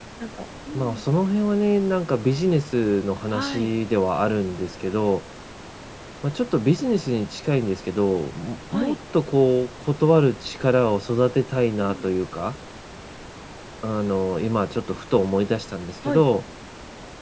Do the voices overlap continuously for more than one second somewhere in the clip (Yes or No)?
No